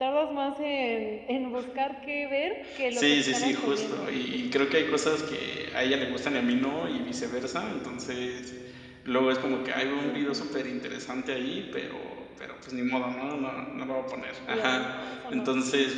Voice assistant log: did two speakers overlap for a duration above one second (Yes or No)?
Yes